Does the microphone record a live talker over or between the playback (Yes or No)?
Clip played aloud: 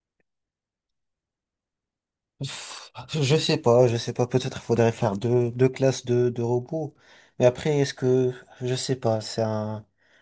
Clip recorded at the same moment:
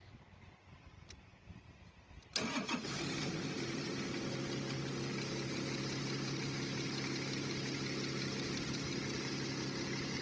No